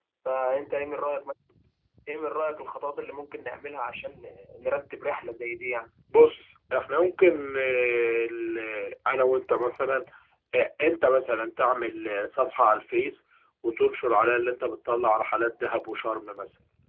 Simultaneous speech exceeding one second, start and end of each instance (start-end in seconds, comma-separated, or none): none